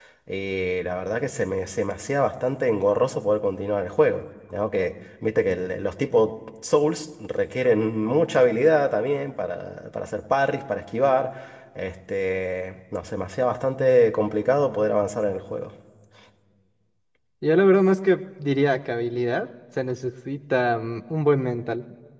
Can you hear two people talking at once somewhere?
No

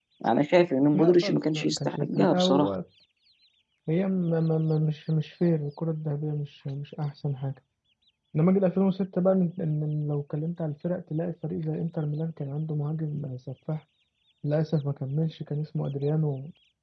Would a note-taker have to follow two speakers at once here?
Yes, from 0.9 s

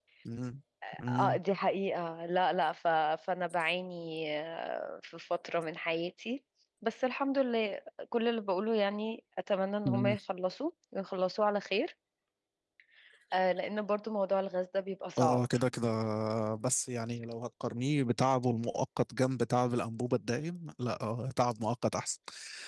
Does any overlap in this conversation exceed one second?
No

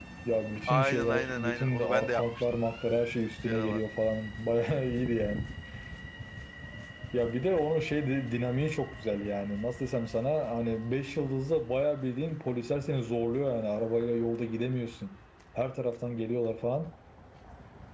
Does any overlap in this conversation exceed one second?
Yes, from 0.7 s

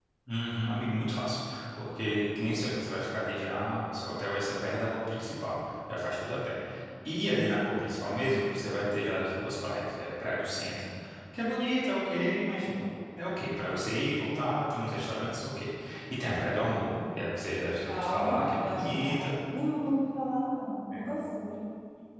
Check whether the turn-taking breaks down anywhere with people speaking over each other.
Yes, from 17.9 s

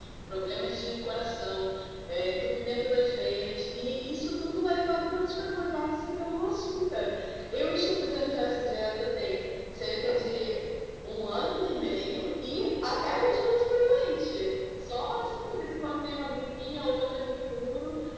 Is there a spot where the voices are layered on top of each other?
No

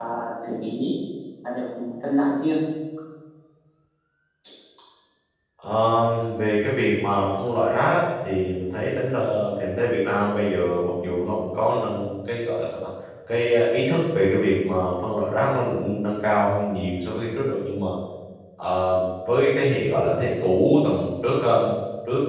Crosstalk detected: No

